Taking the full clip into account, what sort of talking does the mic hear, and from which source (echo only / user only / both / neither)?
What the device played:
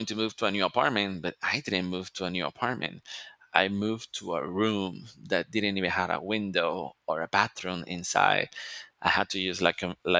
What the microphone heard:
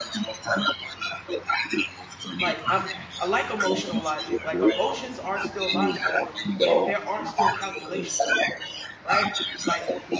both